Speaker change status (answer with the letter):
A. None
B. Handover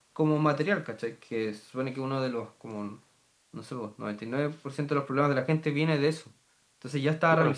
A